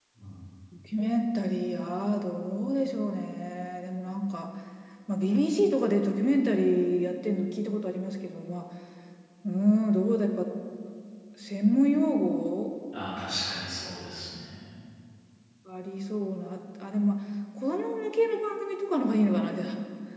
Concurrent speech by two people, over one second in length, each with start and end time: none

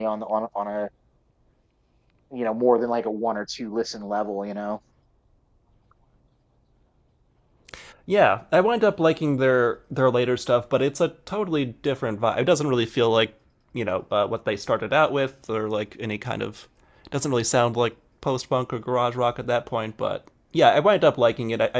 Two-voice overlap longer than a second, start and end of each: none

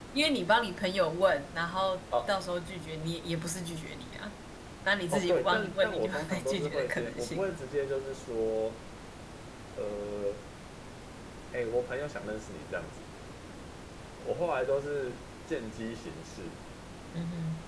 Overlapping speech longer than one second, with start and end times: 5.1-7.5

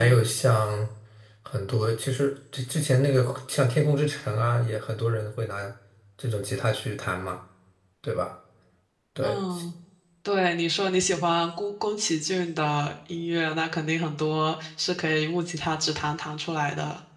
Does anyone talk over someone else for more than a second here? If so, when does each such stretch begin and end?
none

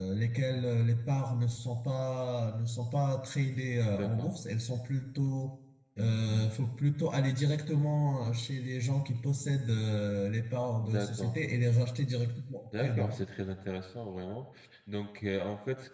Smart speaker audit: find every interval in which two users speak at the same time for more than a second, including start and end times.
none

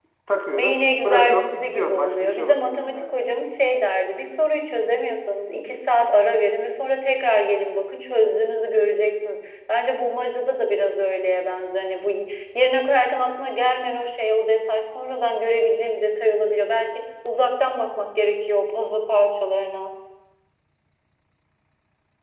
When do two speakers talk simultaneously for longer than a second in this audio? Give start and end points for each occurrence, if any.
0.5-3.1

